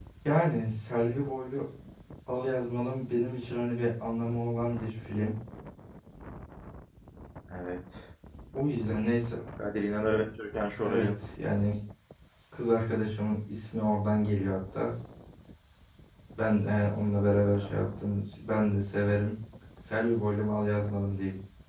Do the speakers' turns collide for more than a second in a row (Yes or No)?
No